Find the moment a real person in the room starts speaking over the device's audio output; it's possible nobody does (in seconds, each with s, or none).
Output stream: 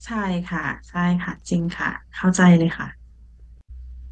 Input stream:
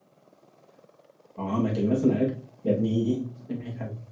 1.3 s